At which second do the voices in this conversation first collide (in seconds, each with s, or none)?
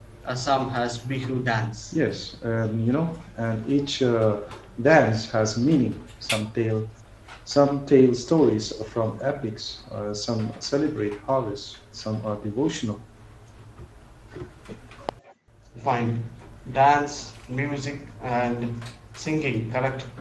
none